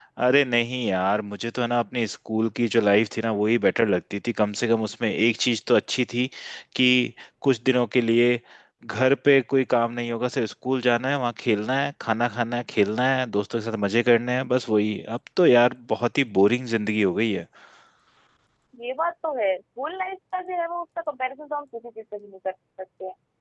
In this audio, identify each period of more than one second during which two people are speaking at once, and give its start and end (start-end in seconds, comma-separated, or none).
none